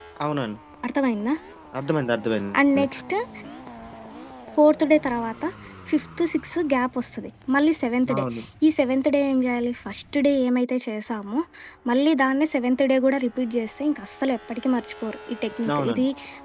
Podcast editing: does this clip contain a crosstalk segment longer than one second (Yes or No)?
No